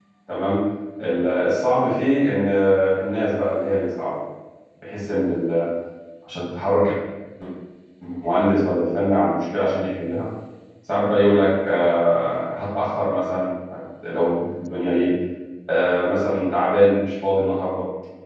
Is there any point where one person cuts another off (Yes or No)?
No